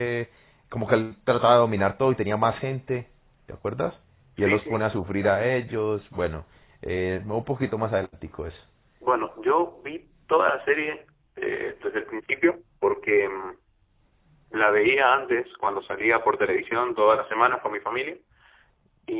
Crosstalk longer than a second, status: none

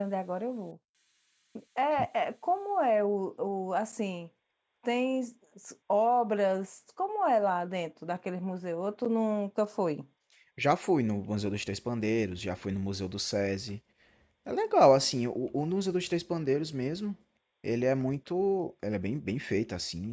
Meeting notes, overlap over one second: none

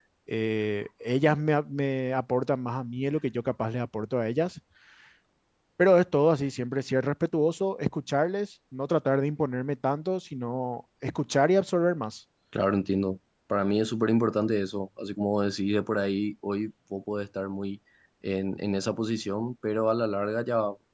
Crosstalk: none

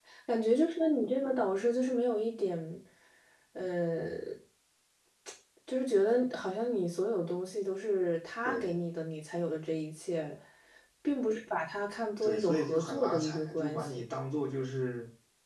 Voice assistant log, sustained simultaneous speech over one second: present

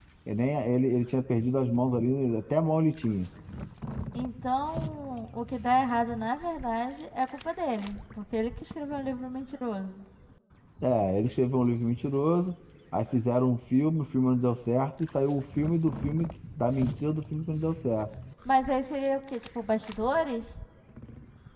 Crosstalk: none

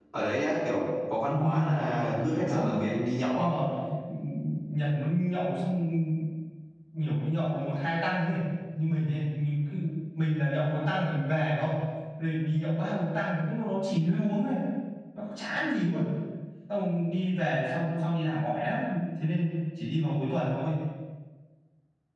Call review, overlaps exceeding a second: present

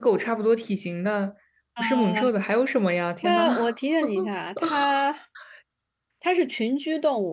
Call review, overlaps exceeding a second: none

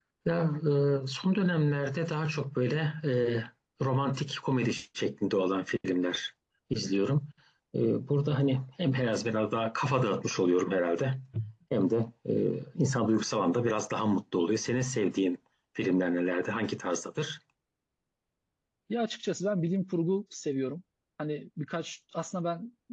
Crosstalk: none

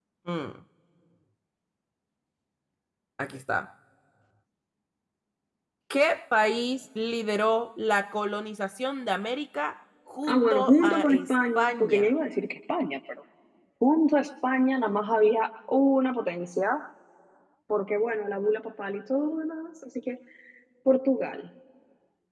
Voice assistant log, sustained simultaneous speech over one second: present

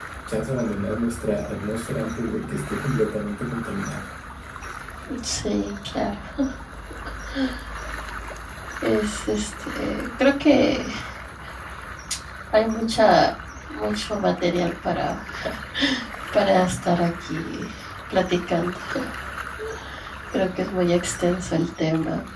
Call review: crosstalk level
none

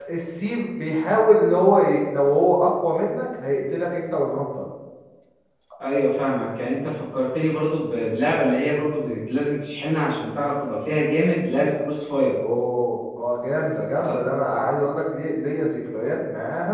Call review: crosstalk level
none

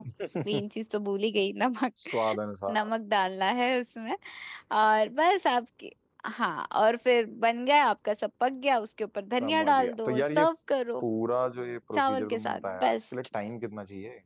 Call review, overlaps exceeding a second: present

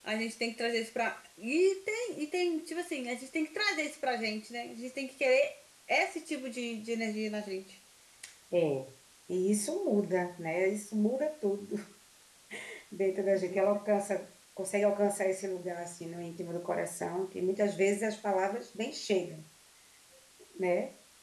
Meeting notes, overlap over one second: none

